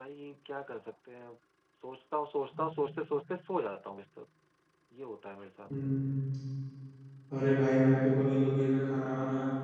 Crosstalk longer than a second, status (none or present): none